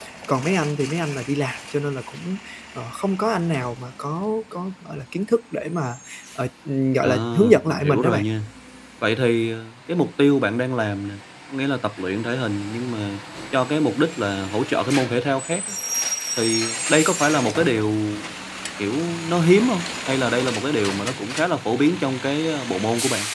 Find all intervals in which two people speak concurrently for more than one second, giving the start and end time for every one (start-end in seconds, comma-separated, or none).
7.0-8.2